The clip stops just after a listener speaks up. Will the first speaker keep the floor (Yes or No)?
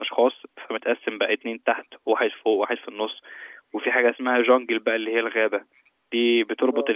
Yes